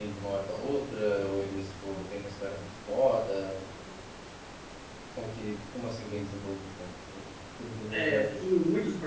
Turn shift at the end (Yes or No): Yes